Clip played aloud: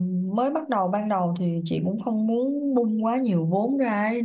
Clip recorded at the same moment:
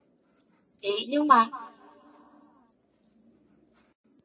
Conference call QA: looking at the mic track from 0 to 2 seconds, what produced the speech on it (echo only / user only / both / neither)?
user only